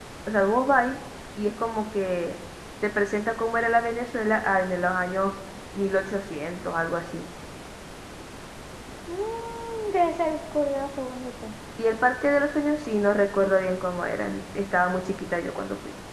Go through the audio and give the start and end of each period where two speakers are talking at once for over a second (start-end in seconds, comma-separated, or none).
none